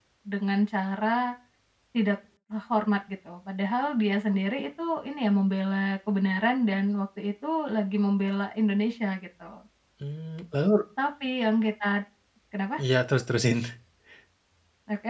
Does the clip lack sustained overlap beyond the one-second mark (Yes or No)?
Yes